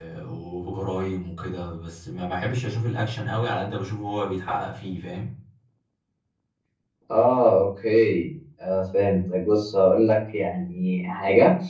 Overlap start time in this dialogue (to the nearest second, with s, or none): none